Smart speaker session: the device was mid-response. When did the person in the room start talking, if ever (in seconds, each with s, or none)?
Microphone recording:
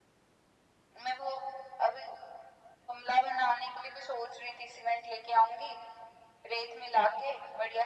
none